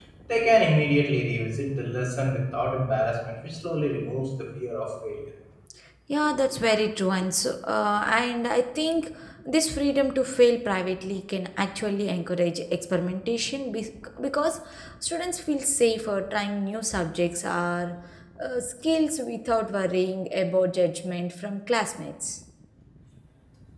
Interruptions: none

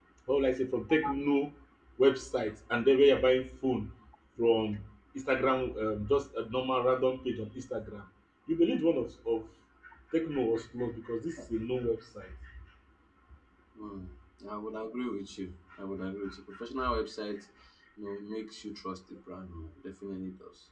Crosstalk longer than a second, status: none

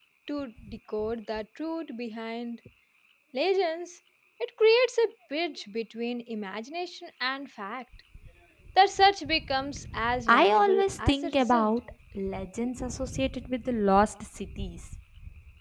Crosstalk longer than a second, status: present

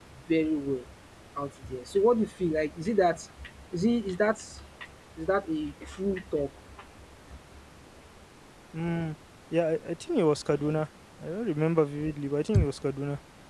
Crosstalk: none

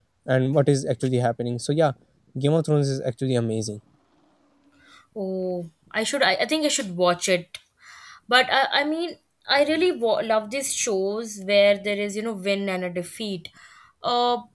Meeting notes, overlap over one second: none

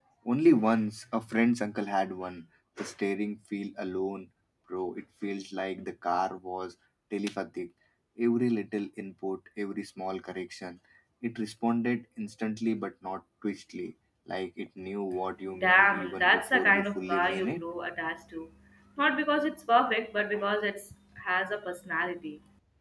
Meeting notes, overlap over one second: present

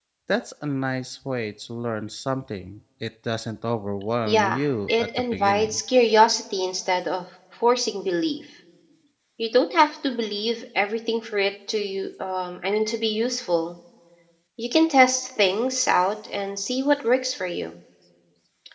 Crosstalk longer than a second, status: present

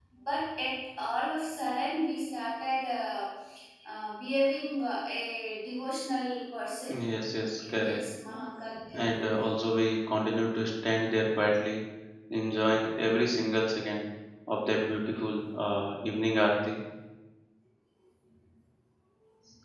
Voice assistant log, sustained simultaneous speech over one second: none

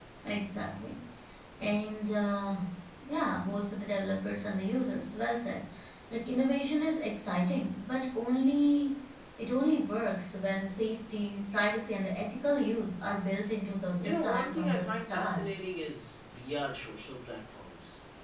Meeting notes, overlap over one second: present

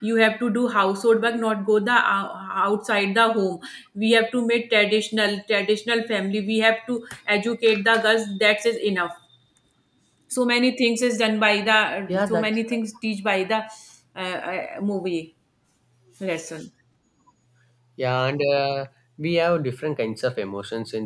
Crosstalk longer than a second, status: none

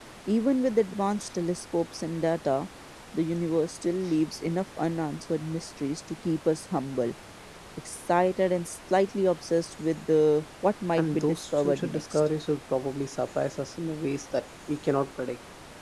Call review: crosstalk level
present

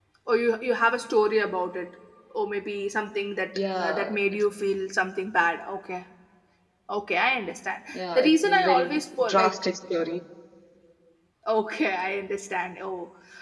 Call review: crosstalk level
present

